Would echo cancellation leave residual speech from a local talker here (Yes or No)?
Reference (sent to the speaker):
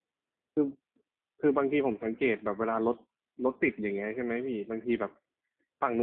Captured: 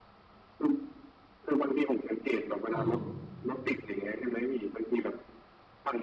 Yes